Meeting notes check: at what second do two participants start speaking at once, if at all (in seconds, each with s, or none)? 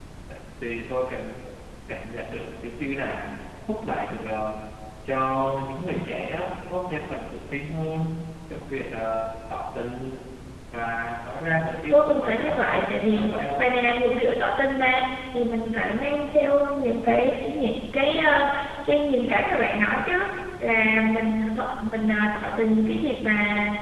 11.9 s